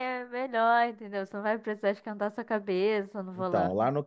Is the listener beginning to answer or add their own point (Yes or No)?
Yes